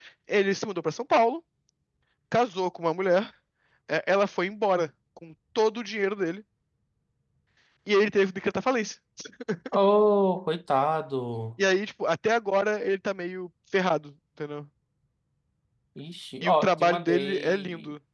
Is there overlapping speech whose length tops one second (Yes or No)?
Yes